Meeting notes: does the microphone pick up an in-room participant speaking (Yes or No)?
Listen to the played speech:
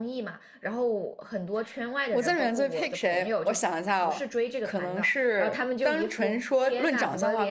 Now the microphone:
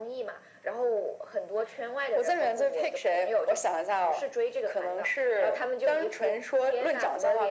No